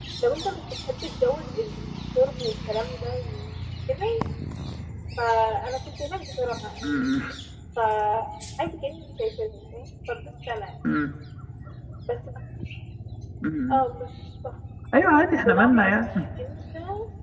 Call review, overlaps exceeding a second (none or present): none